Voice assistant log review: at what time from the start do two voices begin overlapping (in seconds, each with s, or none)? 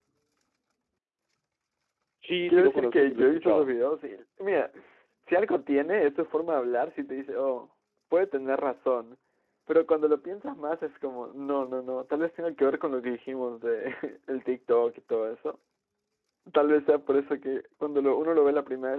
2.5 s